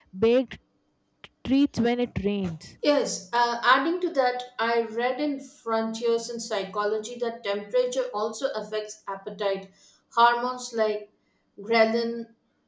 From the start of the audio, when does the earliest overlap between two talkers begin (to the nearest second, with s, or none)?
none